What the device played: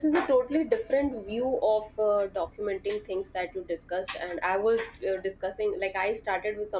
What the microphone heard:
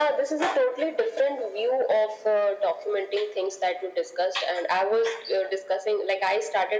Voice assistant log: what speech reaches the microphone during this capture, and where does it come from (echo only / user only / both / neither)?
echo only